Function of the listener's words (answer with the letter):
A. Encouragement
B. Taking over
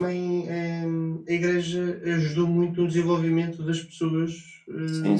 B